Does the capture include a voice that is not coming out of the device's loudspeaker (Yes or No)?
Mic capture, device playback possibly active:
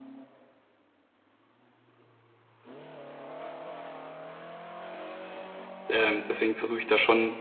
Yes